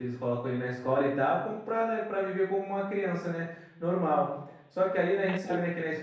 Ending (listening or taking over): listening